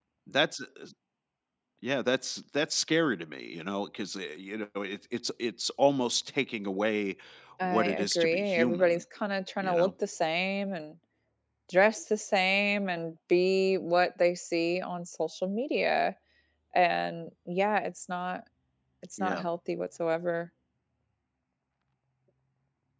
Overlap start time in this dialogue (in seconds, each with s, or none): 7.6 s